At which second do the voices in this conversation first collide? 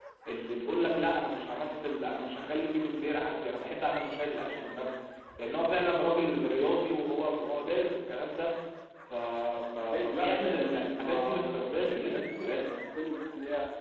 10 s

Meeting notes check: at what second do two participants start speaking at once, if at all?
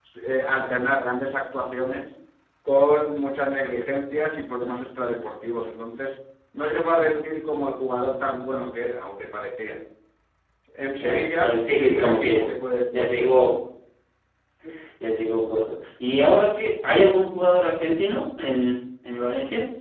11 s

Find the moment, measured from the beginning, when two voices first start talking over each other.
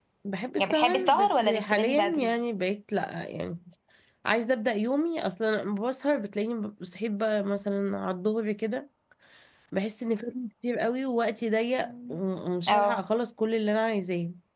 1 s

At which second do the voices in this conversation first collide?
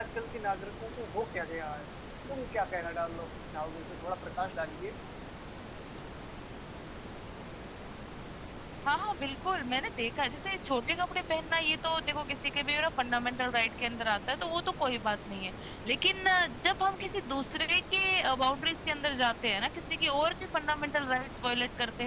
none

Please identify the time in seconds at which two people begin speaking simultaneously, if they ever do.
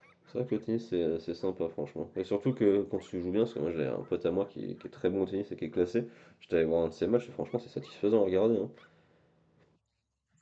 none

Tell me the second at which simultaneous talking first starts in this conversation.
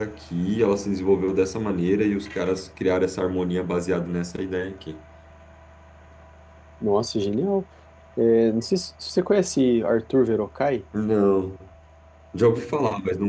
none

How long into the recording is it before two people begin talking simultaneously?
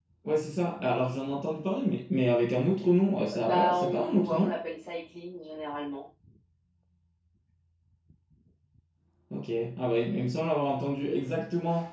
3 s

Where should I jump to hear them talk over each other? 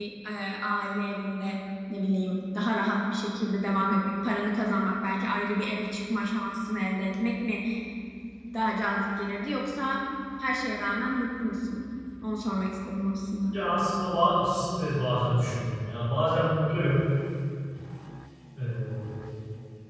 none

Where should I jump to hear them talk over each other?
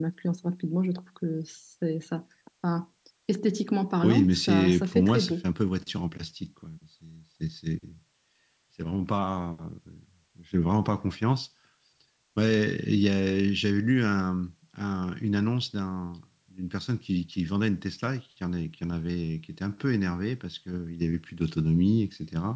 4 s

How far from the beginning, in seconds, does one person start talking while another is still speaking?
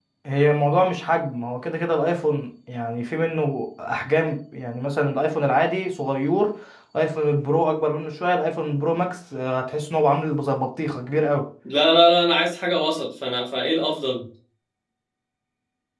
none

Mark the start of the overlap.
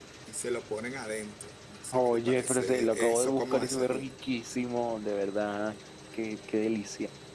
2 s

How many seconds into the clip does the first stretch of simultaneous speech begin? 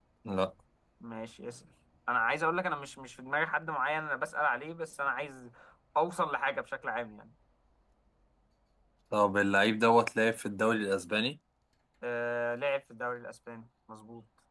none

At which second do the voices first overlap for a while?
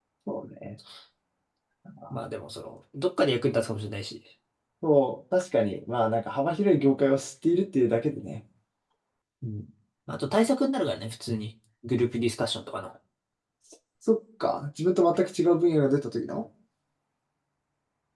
none

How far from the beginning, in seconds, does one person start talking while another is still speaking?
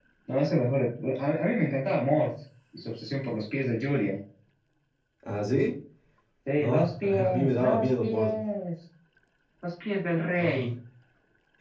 7 s

